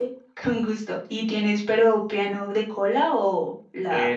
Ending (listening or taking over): taking over